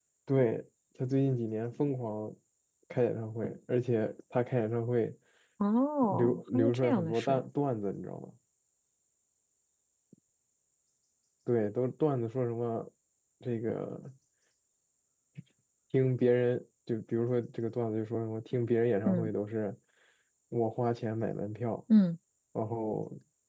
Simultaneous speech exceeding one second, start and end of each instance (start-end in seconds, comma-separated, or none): 6.0-7.4